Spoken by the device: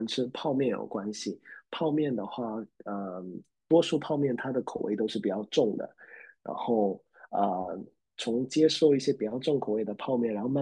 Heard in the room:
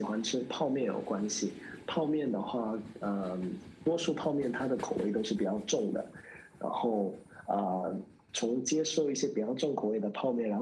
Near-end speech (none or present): none